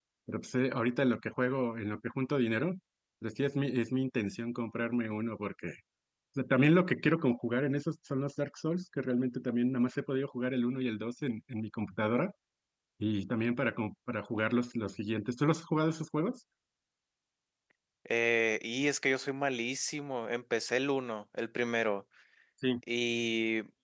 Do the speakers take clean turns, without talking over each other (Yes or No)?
Yes